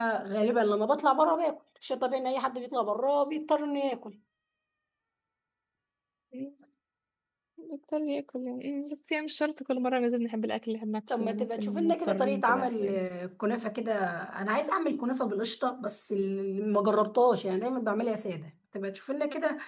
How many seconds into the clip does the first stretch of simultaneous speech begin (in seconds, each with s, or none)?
11.1 s